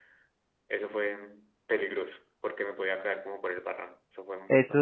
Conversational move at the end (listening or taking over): taking over